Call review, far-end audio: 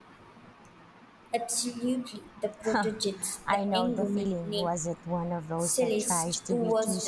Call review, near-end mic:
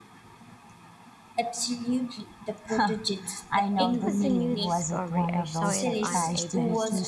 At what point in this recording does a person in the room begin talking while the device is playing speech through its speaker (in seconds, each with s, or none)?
3.8 s